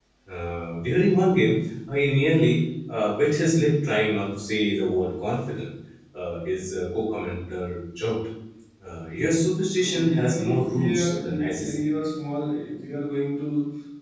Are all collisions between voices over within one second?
No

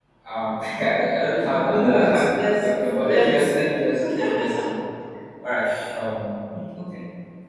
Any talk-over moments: Yes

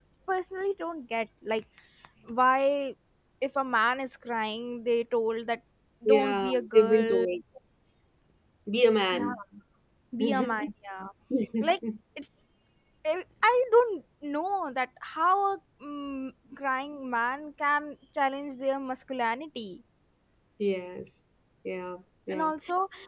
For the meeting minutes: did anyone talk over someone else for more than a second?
Yes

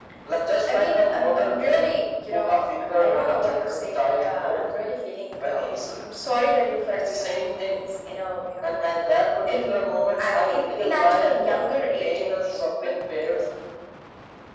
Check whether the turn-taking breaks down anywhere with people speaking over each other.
Yes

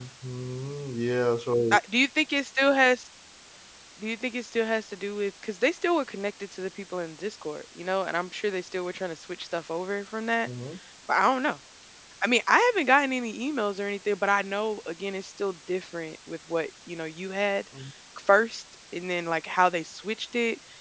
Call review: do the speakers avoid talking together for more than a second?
Yes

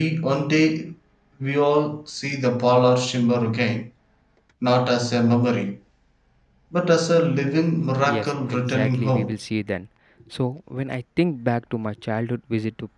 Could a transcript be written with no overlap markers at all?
No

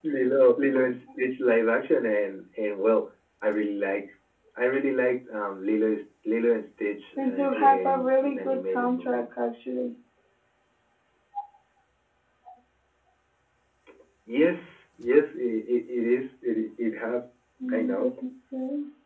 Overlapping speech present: Yes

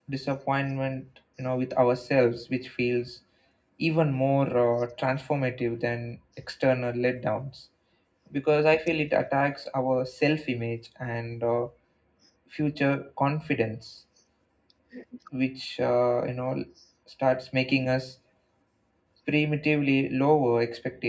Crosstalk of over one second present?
No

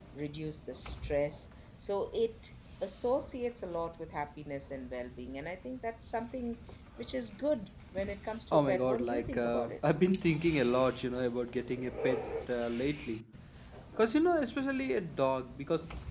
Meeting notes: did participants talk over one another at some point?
Yes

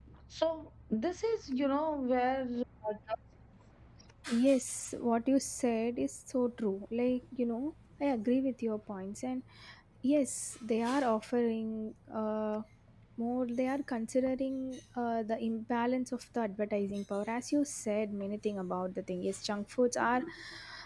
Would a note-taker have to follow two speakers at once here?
No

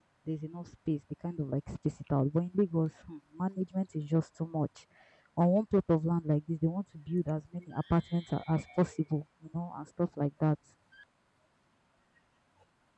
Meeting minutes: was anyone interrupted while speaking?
No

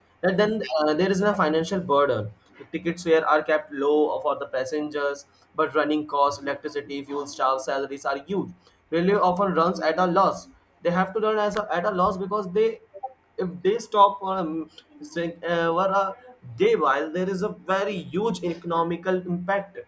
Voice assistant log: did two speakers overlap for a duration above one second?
No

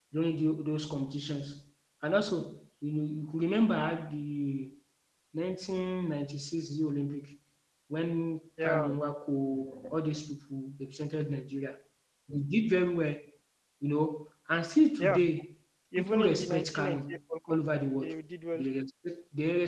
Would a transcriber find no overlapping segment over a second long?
No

